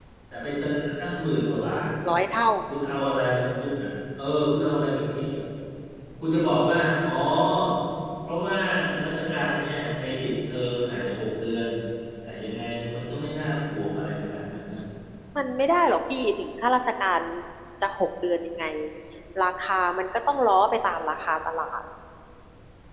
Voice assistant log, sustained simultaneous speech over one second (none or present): none